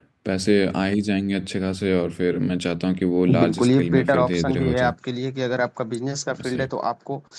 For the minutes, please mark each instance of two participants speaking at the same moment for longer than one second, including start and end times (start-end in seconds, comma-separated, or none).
3.3-4.9